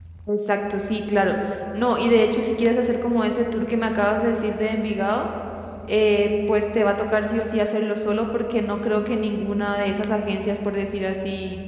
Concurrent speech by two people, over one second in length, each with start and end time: none

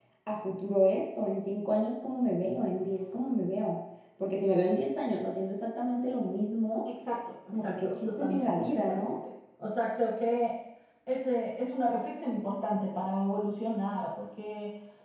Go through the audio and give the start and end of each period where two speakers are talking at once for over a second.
7.5-9.2

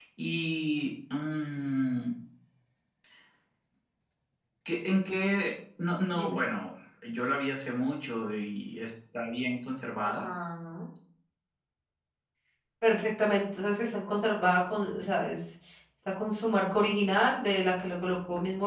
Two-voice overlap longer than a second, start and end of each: none

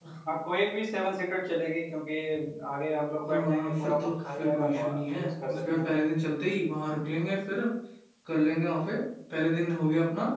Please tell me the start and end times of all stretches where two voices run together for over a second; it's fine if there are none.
3.2-5.8

